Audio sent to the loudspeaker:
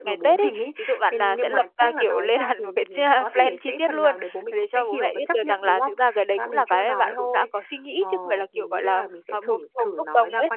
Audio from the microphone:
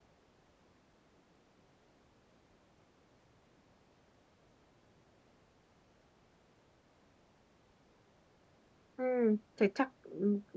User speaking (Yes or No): Yes